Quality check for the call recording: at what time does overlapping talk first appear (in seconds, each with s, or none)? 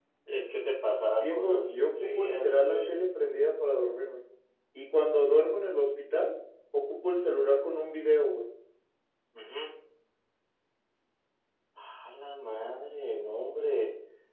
1.2 s